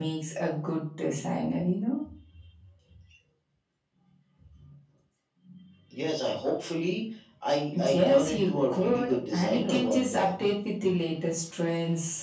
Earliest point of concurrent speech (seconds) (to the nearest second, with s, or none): 8 s